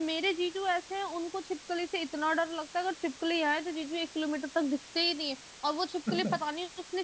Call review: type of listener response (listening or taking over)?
listening